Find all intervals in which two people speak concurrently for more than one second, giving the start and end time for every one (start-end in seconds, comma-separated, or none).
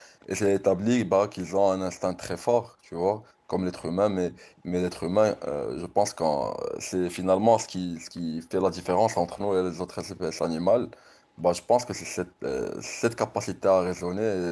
none